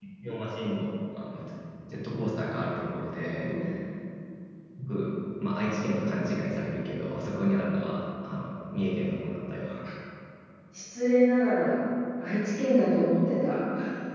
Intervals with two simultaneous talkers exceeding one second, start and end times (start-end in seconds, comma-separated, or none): none